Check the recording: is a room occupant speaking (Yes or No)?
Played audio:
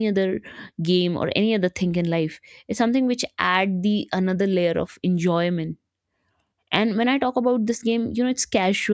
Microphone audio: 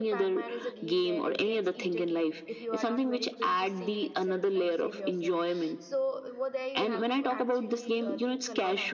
Yes